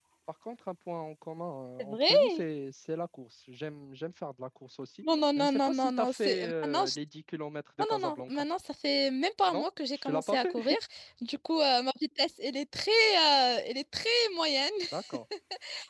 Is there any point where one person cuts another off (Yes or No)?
Yes